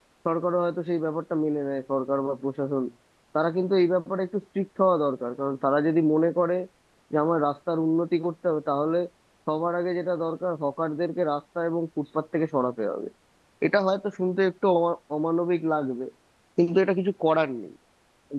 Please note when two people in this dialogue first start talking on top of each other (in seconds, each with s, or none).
none